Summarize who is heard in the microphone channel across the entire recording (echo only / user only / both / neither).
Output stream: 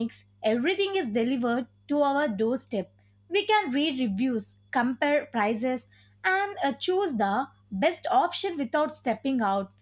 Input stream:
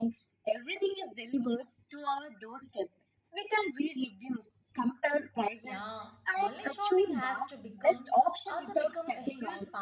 both